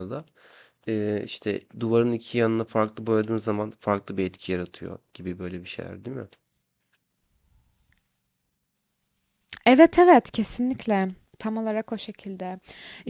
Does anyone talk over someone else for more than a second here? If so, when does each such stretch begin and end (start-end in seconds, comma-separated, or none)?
none